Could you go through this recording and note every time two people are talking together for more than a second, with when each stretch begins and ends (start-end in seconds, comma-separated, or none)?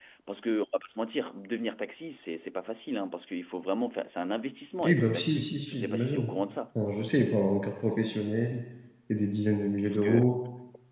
4.8-6.3